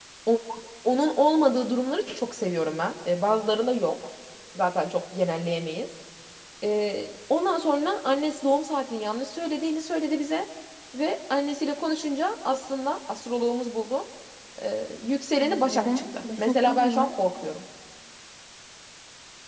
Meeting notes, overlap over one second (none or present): present